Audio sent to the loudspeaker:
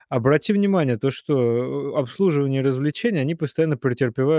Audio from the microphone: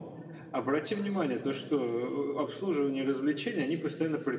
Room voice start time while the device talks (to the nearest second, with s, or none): none